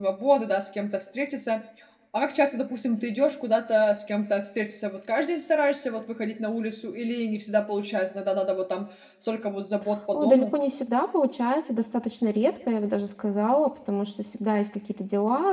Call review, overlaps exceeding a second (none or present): none